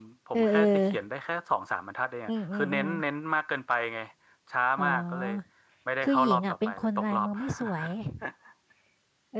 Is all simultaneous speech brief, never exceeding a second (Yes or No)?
No